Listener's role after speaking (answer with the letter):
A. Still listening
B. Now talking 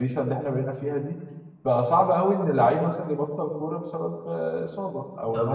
A